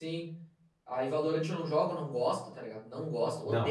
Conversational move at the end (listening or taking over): taking over